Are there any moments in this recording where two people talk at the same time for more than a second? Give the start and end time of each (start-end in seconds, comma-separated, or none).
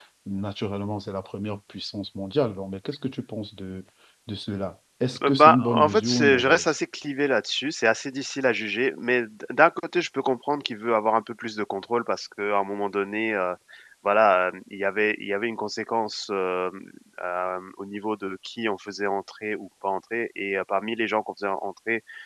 5.3-6.7